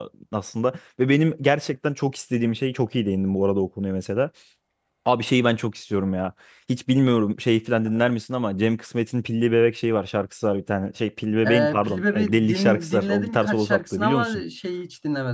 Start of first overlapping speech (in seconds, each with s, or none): 11.4 s